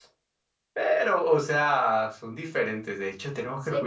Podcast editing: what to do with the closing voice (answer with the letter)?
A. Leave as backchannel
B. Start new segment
A